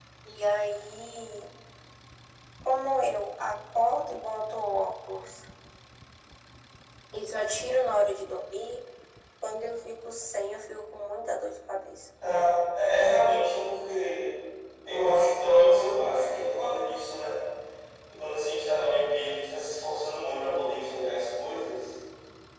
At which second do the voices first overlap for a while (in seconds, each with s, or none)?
none